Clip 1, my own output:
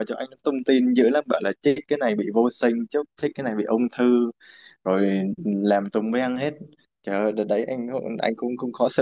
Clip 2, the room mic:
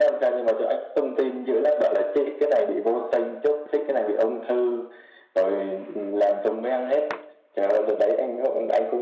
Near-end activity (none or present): none